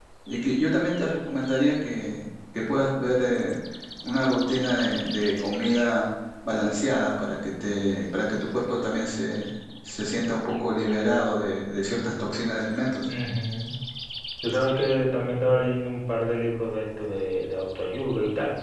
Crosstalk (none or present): none